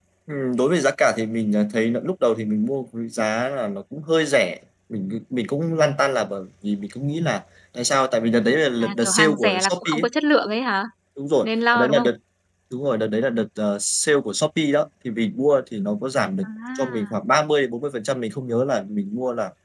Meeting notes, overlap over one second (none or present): present